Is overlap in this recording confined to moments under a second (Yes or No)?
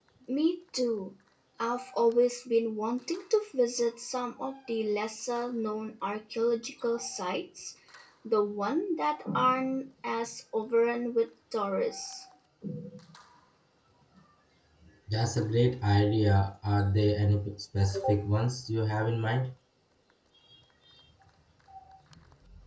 Yes